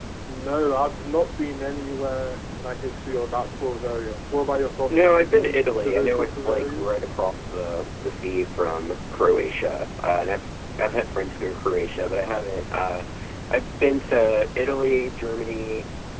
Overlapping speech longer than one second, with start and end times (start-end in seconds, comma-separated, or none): 4.9-6.9